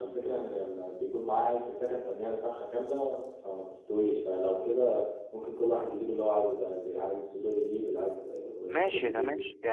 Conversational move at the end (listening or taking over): taking over